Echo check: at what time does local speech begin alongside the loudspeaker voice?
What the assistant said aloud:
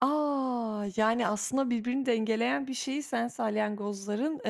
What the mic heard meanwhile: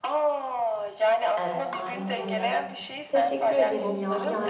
1 s

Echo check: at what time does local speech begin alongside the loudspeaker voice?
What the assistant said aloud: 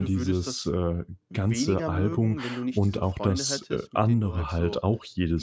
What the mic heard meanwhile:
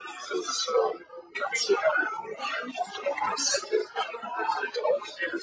none

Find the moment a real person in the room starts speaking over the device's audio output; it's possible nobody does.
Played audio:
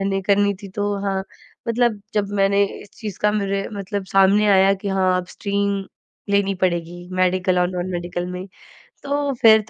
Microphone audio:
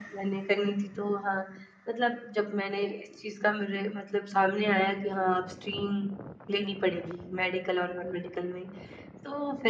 none

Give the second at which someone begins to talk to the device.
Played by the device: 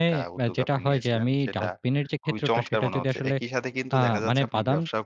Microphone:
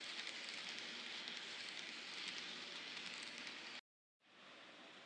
none

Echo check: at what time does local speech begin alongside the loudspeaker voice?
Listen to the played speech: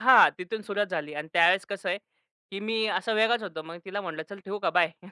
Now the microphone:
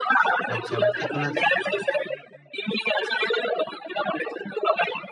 0 s

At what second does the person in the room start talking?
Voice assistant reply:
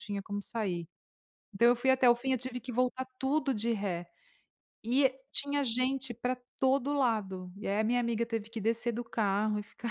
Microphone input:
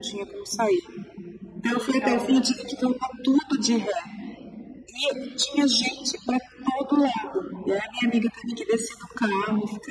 2 s

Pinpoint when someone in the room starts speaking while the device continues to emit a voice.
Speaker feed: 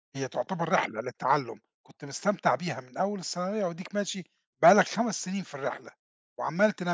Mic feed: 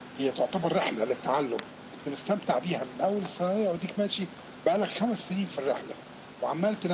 none

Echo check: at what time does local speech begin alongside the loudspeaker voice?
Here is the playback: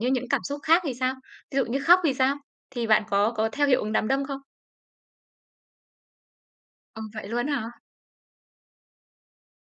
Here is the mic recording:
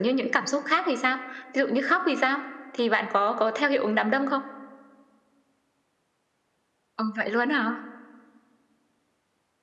none

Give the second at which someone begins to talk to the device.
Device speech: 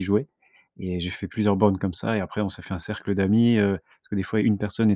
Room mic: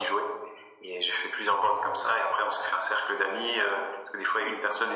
none

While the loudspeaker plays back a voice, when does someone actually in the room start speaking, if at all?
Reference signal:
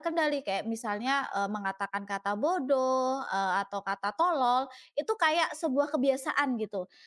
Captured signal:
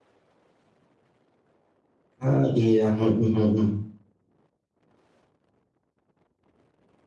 2 s

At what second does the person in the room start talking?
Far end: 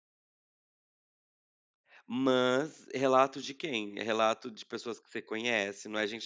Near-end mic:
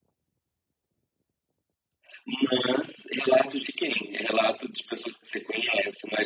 none

